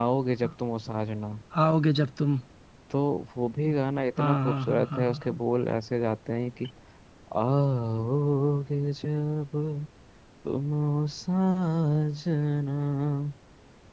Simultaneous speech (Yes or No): Yes